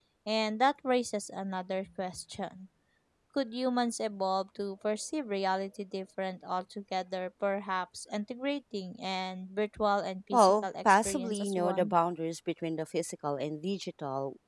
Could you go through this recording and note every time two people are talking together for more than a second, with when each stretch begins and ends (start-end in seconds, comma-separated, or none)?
10.3-11.9